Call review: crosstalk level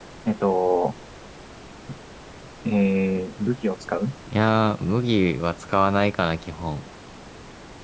none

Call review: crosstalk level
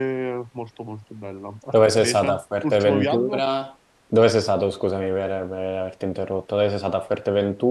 present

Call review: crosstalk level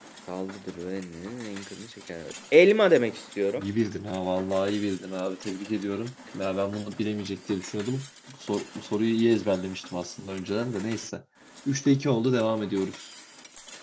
none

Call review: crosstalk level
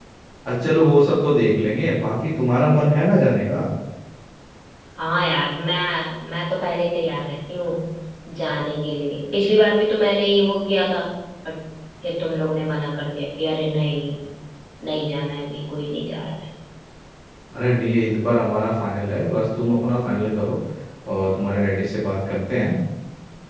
none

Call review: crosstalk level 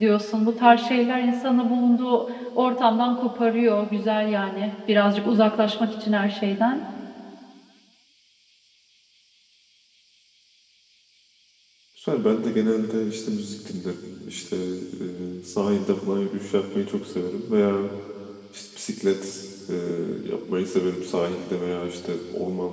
none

